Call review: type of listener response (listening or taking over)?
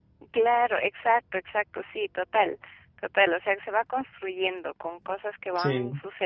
listening